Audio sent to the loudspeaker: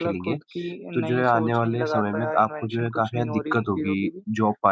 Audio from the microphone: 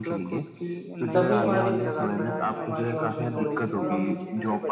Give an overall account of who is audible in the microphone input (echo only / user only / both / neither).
both